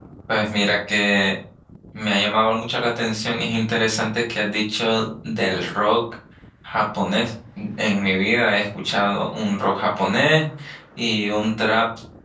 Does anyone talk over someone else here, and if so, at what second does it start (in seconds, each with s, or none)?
none